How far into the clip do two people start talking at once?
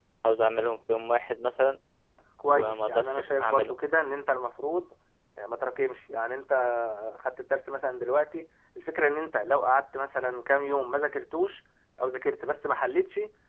3 s

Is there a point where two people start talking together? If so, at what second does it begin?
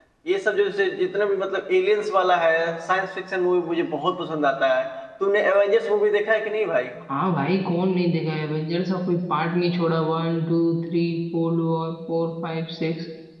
none

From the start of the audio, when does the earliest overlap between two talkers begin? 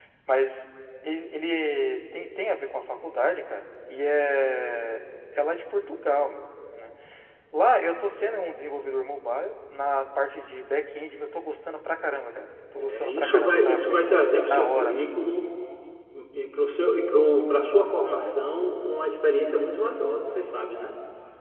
13 s

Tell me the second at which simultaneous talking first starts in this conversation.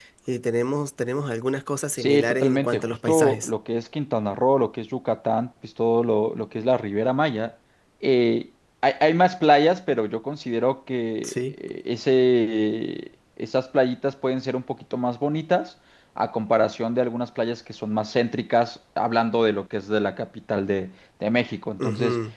2 s

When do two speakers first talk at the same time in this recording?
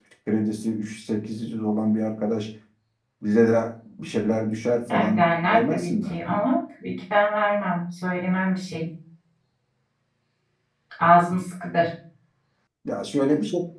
5 s

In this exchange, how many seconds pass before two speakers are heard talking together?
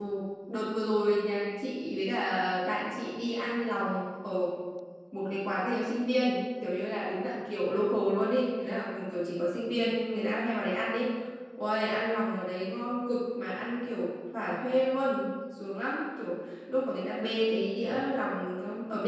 none

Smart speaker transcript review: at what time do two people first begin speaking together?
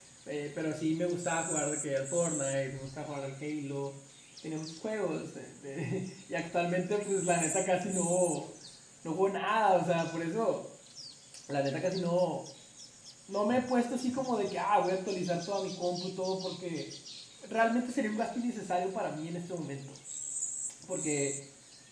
none

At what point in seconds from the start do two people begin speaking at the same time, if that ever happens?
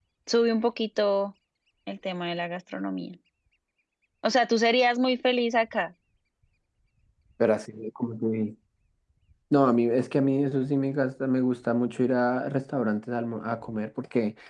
none

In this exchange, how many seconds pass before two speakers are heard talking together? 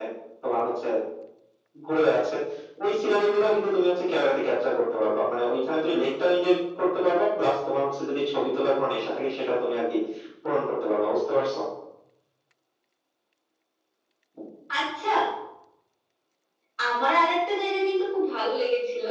none

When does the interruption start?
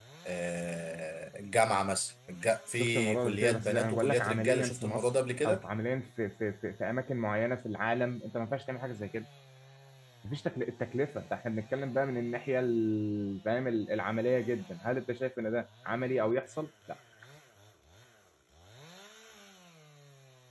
3 s

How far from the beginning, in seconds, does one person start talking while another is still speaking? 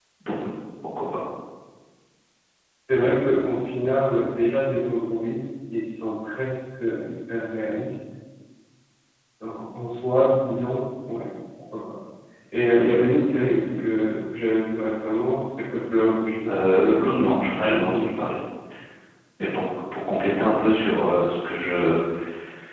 16 s

